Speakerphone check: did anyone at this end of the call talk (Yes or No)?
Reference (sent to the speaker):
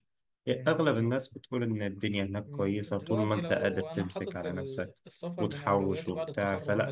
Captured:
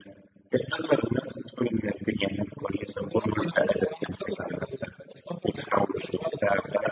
No